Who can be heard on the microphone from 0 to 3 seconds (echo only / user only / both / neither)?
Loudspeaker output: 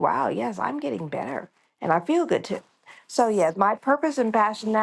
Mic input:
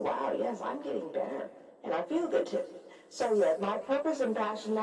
echo only